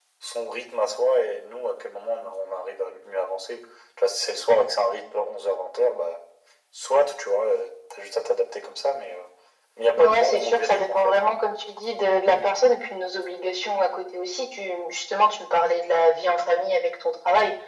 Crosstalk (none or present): present